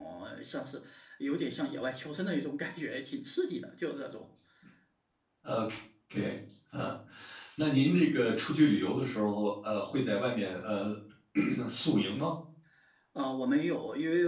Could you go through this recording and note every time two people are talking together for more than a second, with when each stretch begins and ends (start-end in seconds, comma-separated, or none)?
none